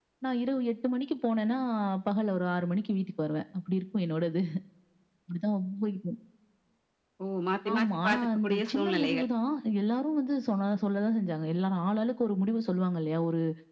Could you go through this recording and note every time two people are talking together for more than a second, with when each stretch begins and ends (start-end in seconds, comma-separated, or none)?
7.7-9.3